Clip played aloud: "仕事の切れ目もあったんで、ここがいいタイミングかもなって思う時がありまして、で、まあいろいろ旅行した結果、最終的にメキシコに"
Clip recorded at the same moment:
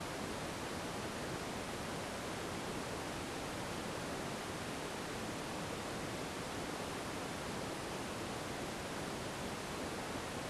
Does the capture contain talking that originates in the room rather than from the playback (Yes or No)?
No